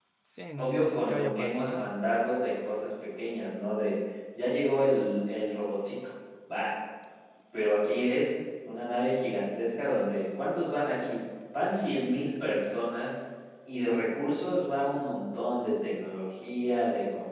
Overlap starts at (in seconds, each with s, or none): 0.6 s